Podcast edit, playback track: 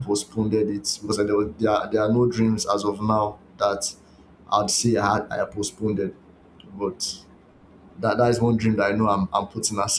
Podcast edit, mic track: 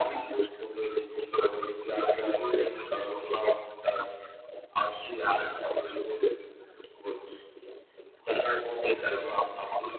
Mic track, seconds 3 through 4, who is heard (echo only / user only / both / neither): echo only